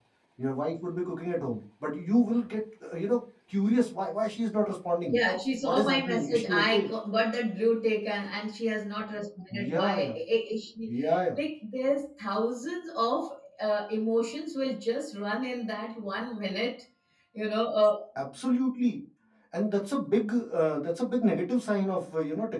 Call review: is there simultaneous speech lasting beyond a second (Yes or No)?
Yes